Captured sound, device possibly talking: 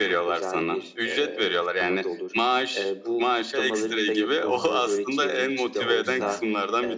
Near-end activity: present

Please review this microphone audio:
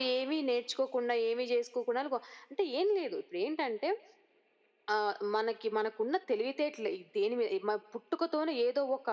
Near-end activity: none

